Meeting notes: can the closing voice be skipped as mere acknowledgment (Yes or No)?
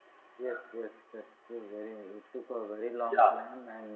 Yes